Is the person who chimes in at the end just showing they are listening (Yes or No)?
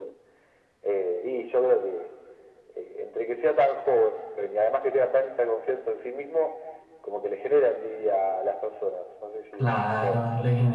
No